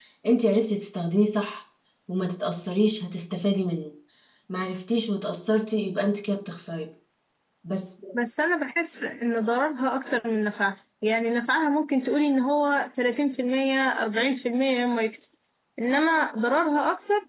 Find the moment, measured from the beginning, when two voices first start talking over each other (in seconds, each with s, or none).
none